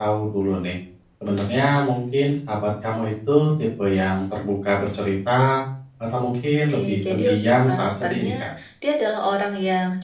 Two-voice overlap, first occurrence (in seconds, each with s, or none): 6.7 s